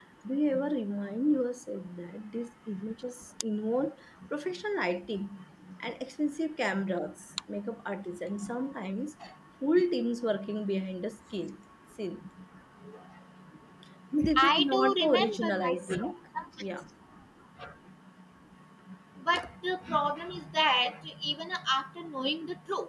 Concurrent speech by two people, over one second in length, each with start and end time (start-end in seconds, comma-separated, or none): 14.4-16.1